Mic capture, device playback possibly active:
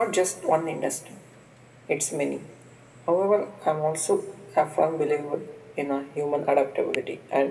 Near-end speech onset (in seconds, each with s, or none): none